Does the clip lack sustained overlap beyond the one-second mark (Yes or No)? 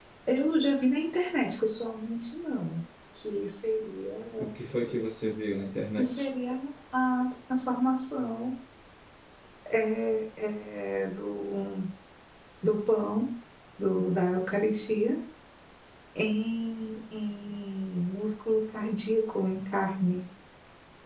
Yes